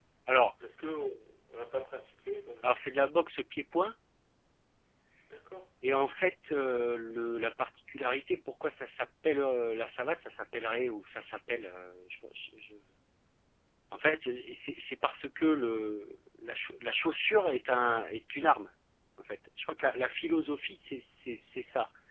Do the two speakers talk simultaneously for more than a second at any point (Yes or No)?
No